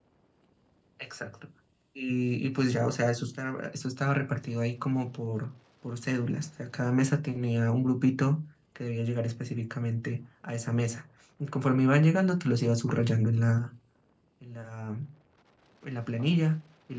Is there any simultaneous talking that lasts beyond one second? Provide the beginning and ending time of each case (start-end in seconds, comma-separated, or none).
none